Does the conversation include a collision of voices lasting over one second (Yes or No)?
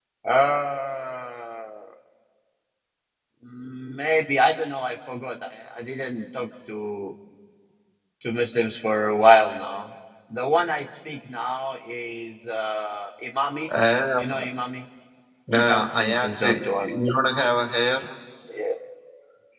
Yes